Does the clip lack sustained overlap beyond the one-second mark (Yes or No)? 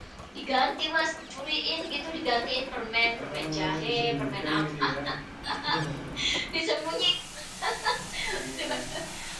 No